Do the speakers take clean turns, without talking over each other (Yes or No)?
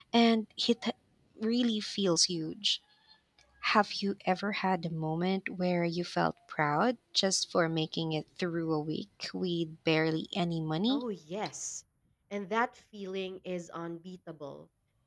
Yes